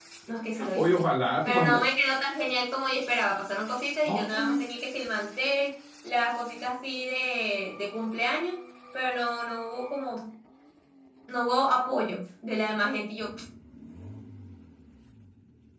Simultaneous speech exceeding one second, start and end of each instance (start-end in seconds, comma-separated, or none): none